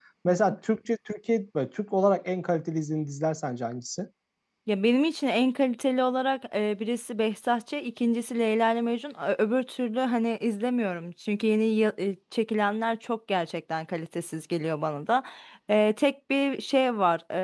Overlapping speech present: No

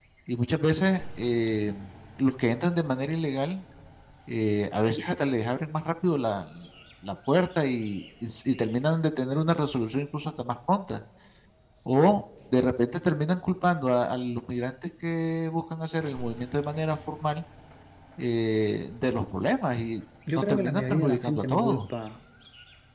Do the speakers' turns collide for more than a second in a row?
Yes, from 20.3 s

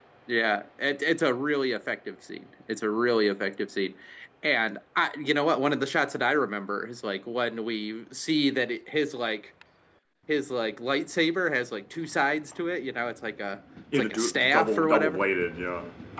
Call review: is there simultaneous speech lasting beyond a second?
Yes, from 13.9 s

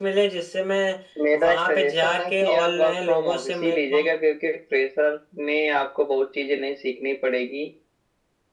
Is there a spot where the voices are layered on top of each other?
Yes, from 1.4 s

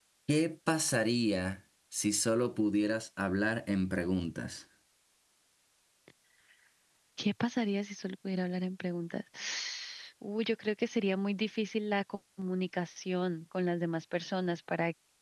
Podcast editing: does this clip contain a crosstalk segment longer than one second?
No

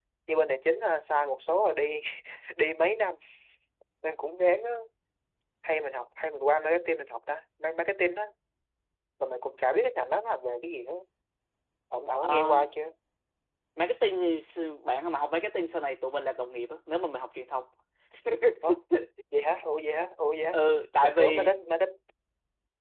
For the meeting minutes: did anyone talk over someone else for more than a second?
No

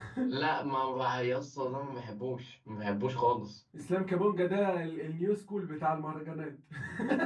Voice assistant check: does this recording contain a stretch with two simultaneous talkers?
No

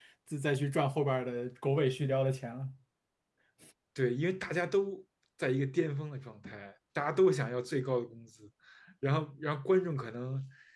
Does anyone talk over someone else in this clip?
No

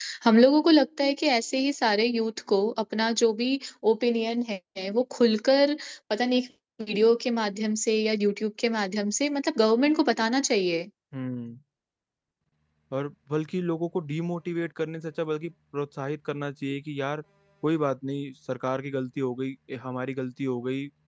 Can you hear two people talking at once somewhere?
No

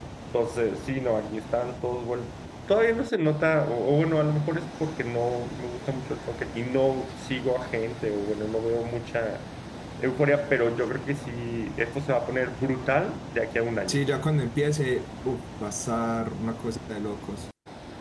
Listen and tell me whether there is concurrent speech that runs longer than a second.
No

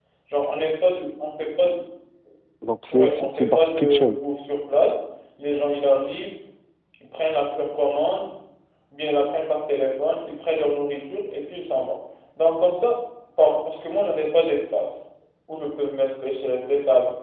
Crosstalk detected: Yes, from 2.9 s

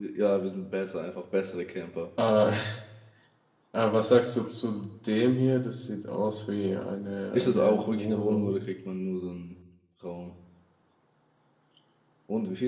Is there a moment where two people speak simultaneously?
Yes, from 7.3 s

